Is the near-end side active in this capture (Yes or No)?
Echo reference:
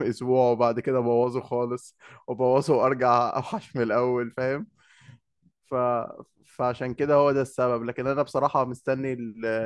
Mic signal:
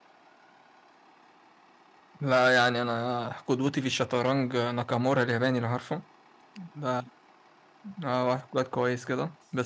Yes